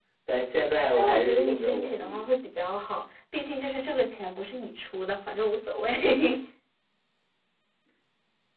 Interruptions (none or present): present